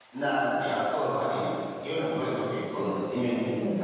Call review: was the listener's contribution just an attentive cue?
Yes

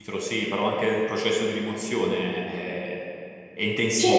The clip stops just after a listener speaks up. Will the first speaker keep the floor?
No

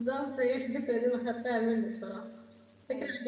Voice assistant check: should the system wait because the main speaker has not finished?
Yes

